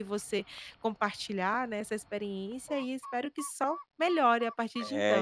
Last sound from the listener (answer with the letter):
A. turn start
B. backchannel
A